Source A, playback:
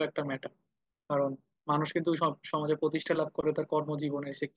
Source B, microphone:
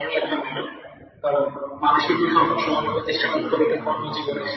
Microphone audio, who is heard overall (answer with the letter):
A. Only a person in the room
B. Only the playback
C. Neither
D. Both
D